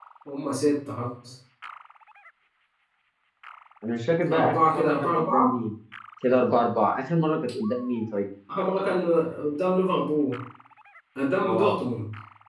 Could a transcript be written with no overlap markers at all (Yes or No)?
No